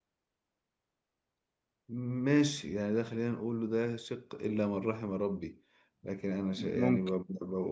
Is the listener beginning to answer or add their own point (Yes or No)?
No